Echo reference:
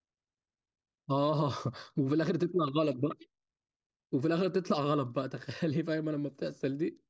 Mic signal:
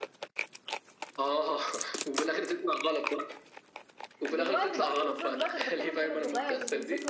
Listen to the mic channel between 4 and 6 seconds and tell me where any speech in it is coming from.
both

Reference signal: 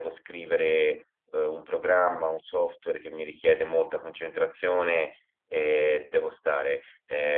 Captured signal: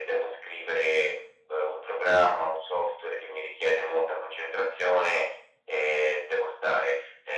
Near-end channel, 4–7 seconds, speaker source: echo only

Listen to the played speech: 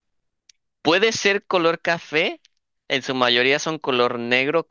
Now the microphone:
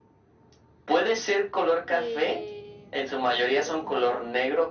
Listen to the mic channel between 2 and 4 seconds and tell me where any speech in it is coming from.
both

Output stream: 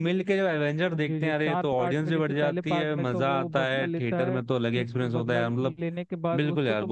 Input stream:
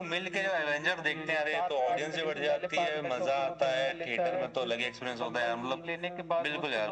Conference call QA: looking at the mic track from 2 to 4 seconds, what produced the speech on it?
both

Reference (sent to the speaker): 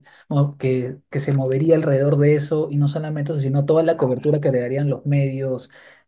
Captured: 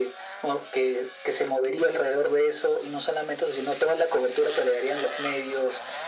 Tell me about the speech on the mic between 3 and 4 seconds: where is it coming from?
echo only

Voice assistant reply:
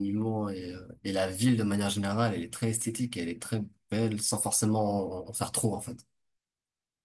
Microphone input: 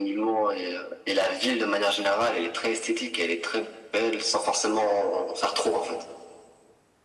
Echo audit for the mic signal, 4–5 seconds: echo only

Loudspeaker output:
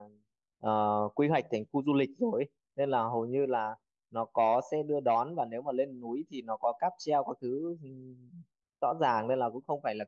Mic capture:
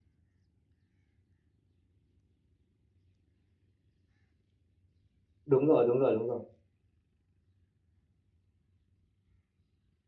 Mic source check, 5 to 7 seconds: user only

